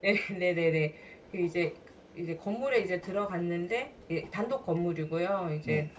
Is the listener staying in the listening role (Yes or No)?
Yes